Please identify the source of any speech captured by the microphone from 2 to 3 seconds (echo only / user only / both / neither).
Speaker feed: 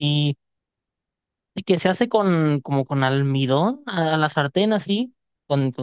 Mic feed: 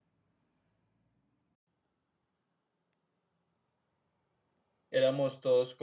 neither